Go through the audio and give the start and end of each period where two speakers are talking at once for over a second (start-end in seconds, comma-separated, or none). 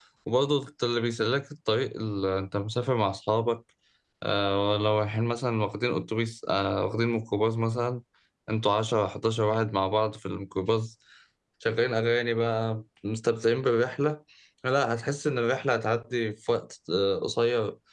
none